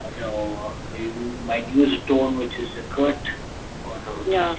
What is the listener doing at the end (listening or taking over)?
listening